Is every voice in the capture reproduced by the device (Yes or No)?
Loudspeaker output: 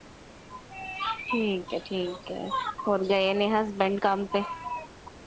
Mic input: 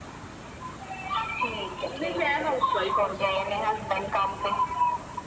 No